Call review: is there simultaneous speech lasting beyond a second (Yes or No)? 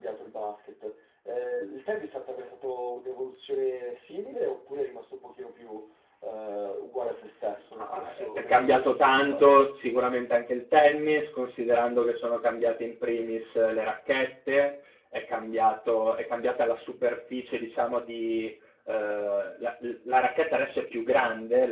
Yes